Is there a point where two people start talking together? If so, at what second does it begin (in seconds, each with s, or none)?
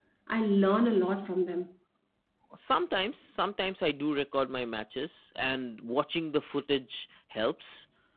none